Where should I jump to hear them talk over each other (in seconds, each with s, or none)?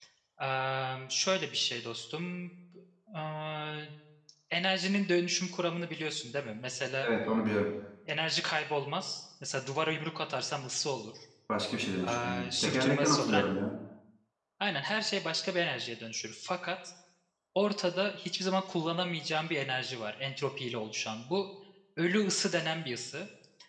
12.0 s